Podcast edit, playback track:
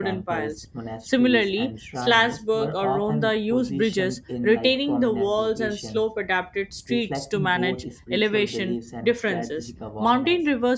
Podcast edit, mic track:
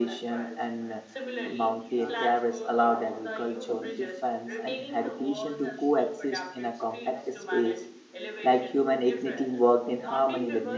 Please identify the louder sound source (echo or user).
user